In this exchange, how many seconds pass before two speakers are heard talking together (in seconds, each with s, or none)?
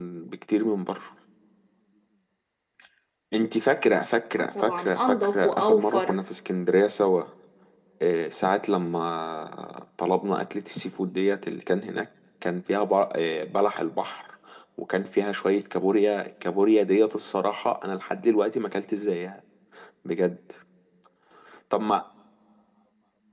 4.4 s